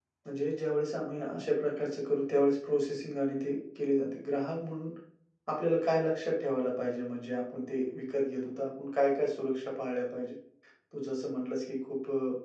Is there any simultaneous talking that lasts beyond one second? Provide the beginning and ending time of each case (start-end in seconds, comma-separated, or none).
none